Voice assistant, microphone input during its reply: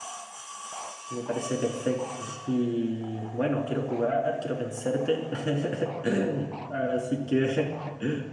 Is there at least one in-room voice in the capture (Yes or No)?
No